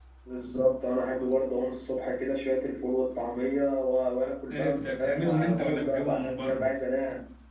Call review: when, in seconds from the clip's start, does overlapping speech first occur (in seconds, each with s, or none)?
4.5 s